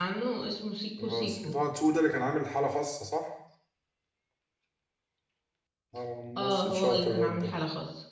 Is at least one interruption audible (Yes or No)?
Yes